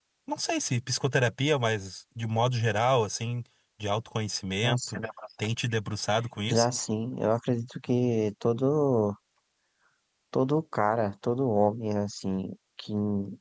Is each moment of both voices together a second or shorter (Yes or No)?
Yes